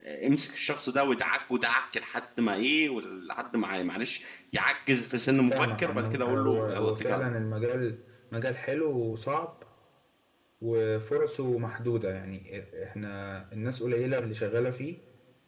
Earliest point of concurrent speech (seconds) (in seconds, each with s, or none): 5.5 s